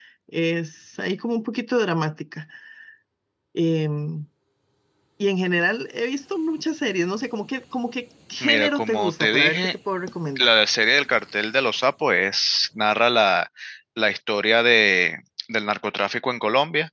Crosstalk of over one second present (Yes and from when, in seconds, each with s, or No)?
Yes, from 8.4 s